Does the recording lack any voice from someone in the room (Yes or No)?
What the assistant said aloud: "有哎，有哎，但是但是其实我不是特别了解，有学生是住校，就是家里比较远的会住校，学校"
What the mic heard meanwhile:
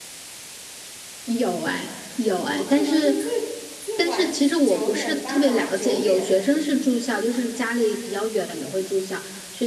No